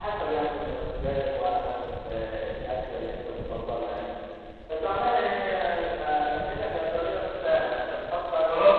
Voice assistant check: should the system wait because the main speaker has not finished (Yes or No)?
No